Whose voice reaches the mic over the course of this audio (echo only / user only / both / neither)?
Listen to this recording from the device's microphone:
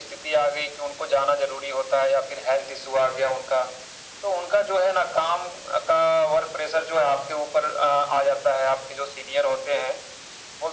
echo only